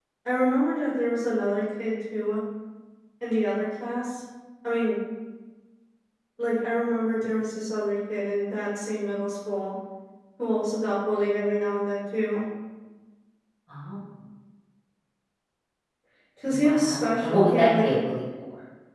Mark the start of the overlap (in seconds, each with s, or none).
16.5 s